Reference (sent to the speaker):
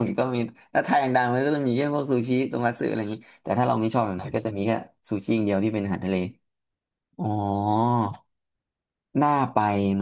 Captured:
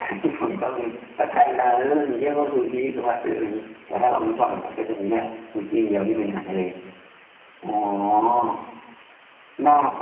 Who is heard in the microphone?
echo only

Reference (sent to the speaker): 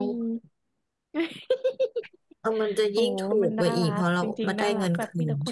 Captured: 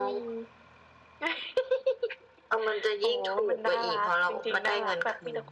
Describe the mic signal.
echo only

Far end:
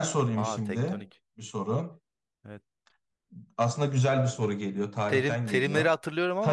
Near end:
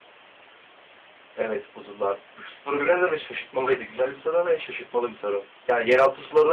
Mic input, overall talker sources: user only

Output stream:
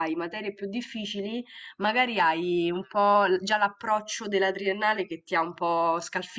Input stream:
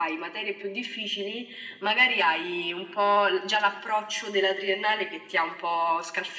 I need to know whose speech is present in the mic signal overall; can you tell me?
echo only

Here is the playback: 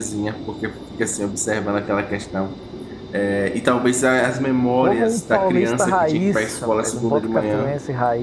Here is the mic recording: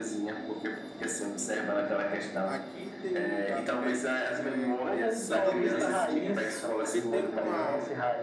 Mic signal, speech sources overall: both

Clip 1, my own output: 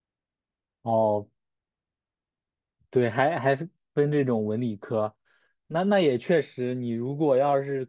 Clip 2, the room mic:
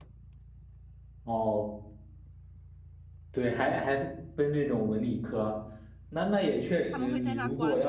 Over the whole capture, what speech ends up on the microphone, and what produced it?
both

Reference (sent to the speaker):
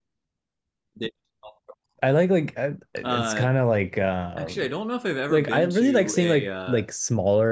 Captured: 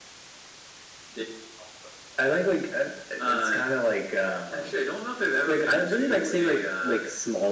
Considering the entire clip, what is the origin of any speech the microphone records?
echo only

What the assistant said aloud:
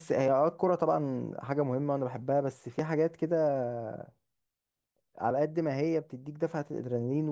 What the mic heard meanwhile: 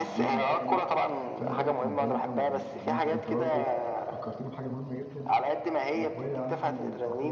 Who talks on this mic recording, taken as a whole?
both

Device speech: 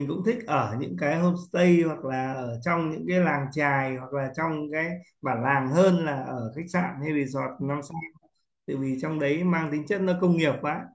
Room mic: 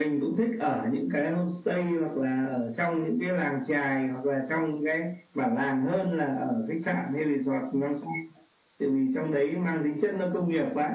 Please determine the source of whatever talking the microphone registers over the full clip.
echo only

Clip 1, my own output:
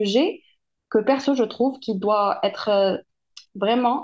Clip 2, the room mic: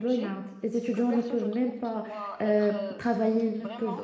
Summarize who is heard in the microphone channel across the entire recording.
both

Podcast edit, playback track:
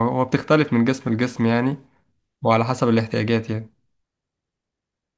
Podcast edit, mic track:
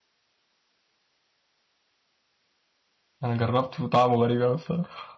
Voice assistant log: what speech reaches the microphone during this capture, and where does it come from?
user only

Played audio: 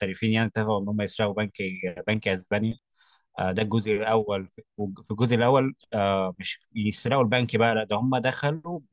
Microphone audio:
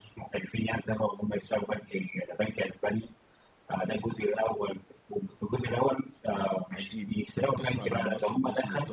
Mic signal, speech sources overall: both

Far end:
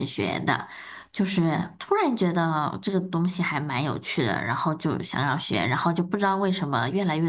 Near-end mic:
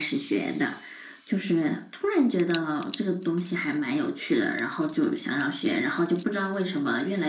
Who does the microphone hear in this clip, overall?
echo only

